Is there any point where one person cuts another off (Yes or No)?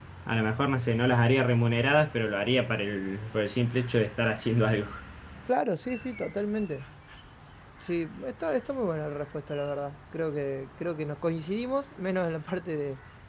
No